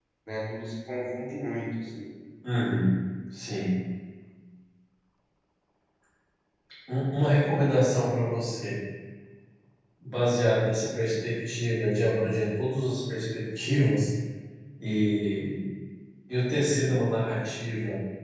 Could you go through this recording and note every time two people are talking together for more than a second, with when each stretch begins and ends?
none

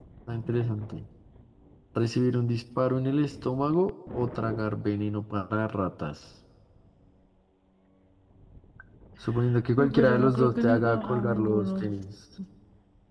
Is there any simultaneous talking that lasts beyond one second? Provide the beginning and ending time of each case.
9.8-11.9

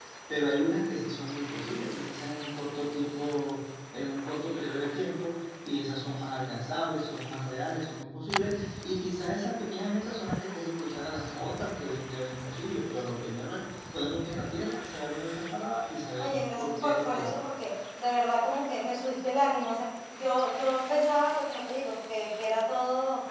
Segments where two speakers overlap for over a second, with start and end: 16.2-17.4

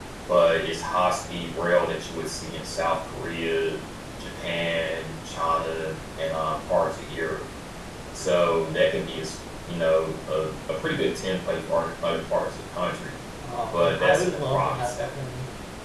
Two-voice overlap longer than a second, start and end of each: 13.7-15.1

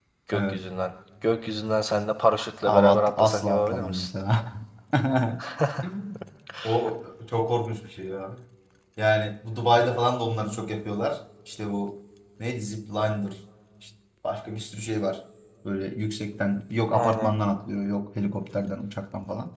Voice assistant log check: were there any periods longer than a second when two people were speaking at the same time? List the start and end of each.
2.7-4.1

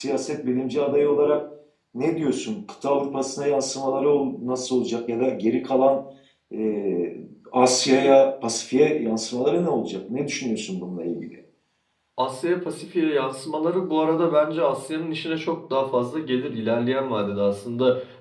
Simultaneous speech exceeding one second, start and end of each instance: none

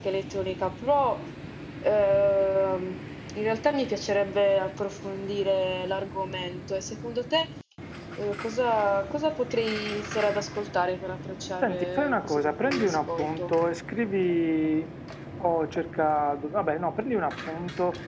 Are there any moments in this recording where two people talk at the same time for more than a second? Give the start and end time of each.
11.6-13.5

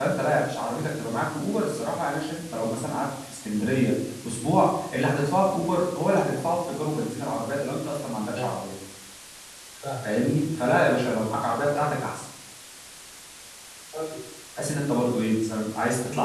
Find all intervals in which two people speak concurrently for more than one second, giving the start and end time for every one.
none

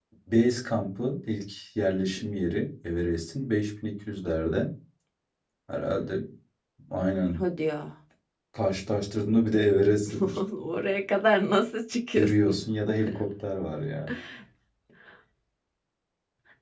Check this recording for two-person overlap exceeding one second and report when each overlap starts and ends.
none

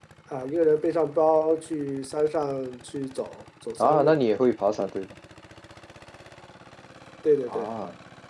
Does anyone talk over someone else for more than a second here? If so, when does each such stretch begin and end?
none

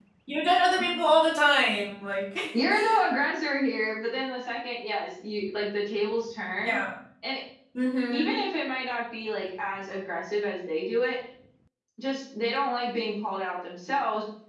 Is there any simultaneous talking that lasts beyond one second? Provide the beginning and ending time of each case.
none

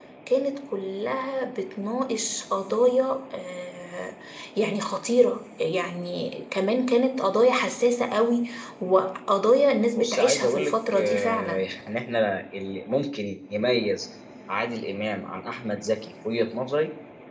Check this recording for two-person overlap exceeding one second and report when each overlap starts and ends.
9.9-11.6

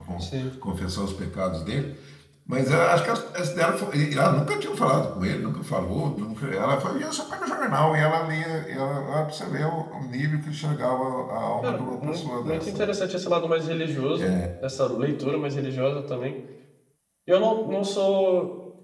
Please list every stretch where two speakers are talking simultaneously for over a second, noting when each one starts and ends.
11.6-12.9

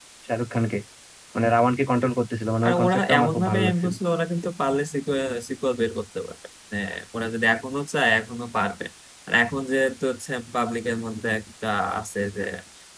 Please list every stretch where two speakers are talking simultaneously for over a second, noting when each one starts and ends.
2.6-3.9

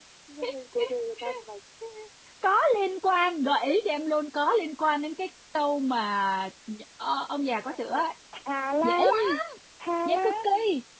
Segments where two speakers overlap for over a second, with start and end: none

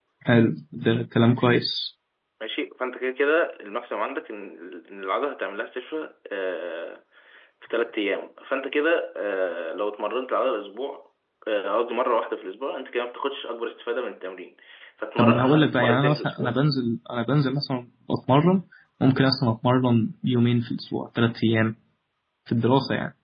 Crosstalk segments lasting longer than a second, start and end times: 15.2-16.6

